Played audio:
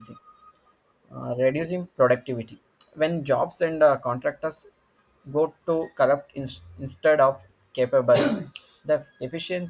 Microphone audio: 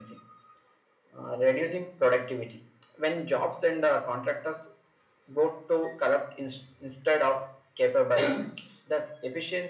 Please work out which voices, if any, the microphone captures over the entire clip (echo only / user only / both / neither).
echo only